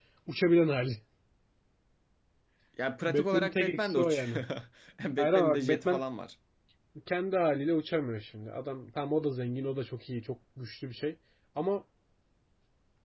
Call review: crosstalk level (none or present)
present